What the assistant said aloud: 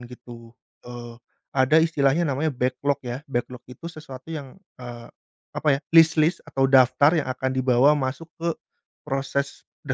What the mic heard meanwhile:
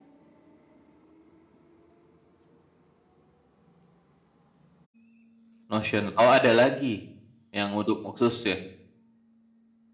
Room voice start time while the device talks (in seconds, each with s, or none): 5.7 s